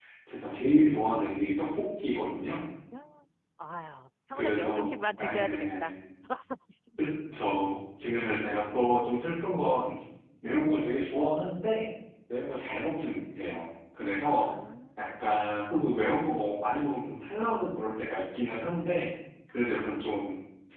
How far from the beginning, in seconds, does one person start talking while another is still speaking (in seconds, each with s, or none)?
4.3 s